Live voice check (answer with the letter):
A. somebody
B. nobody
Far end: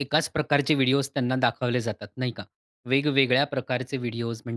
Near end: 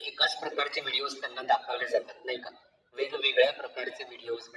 B